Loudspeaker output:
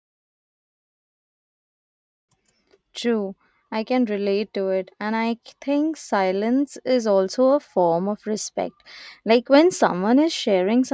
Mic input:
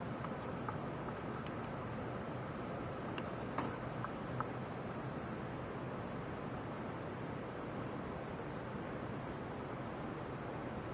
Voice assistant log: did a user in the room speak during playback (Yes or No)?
No